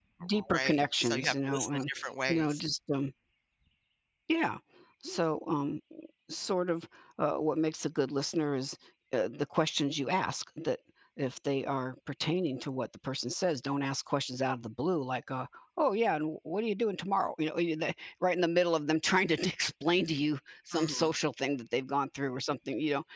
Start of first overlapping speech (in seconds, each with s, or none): 0.6 s